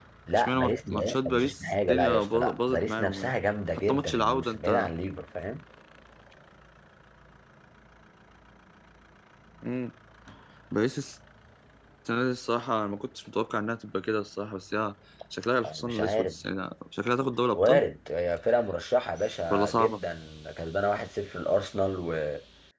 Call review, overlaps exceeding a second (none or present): present